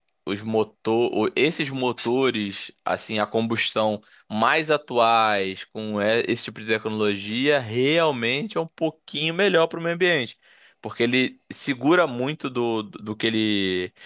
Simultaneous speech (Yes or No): No